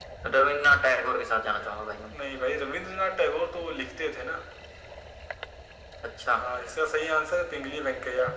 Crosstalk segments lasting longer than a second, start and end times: none

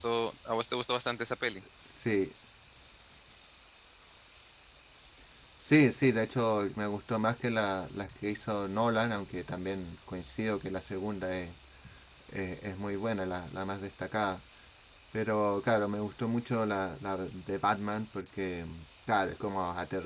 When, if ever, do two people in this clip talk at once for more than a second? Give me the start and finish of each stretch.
none

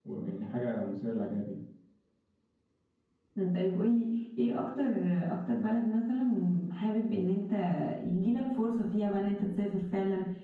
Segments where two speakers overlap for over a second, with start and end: none

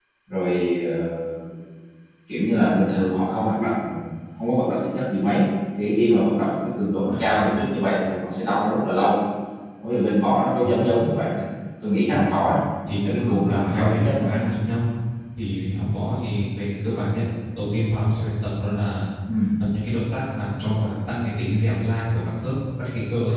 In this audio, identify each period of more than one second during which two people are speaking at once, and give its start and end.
13.0-14.3

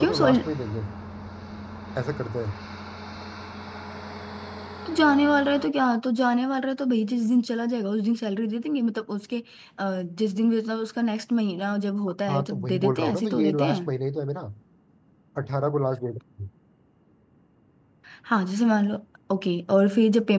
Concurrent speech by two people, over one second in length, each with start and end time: 12.3-13.9

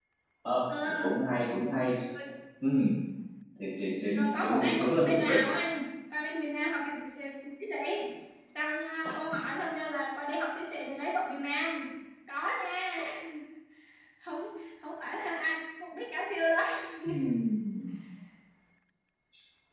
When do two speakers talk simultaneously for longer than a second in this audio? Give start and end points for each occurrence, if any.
4.1-5.4

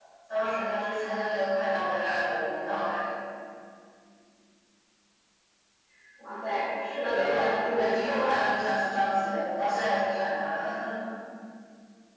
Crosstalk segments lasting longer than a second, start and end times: 7.0-8.3

